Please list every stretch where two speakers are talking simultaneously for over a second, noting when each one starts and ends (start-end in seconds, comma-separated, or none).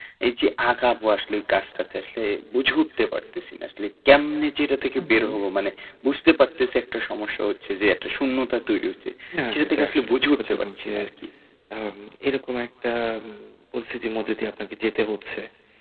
9.5-10.9